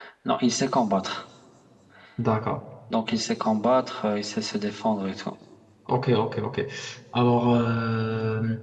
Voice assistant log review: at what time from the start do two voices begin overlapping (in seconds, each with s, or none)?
none